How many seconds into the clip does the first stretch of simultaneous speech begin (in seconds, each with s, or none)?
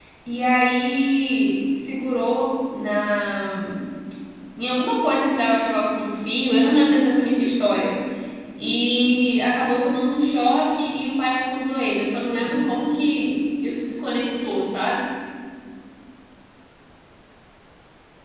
none